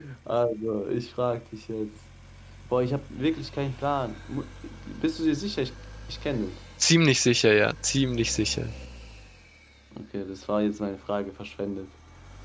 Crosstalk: none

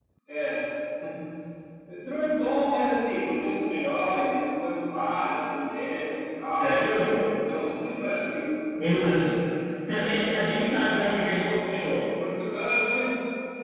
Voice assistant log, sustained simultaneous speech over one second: present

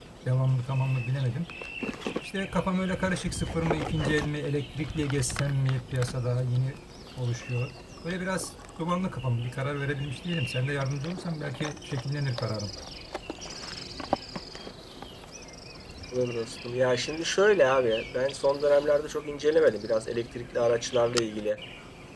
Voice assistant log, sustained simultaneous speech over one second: none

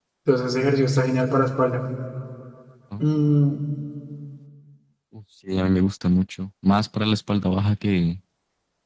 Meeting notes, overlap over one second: none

